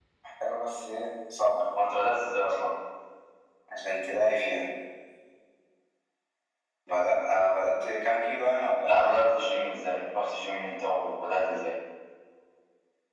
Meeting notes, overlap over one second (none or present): none